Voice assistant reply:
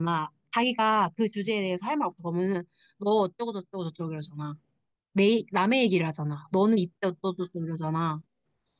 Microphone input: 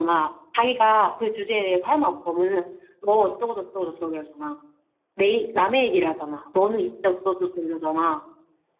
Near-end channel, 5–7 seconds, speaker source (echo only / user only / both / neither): echo only